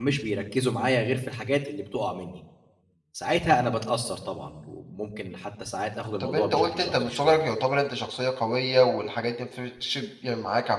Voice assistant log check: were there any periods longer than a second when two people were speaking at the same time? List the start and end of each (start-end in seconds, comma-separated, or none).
6.2-7.4